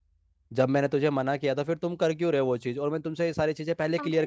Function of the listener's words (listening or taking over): taking over